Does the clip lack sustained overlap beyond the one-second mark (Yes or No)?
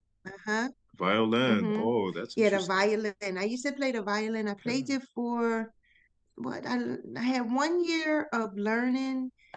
Yes